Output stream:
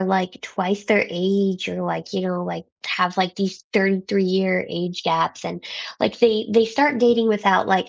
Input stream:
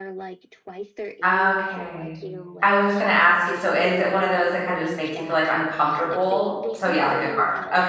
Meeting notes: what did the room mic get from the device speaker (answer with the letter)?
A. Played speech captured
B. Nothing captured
A